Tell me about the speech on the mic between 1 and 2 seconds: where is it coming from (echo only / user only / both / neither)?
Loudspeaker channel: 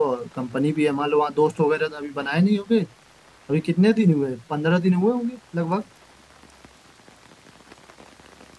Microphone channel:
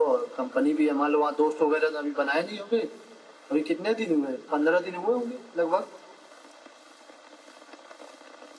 echo only